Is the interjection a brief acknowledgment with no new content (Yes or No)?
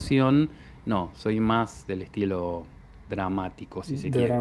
No